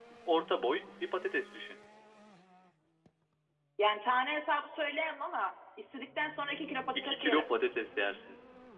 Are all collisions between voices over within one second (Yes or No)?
Yes